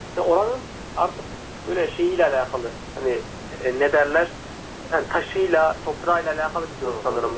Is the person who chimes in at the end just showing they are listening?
No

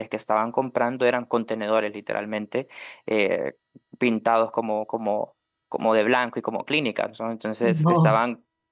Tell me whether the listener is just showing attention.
Yes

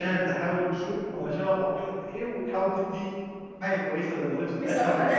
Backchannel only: No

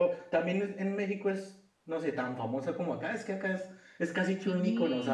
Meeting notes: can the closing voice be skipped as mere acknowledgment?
Yes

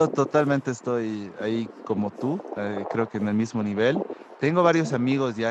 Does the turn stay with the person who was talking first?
Yes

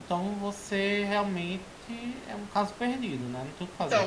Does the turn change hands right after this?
Yes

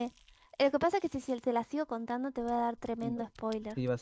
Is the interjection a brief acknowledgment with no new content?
No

